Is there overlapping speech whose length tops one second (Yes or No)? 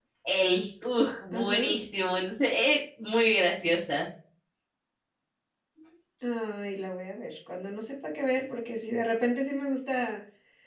No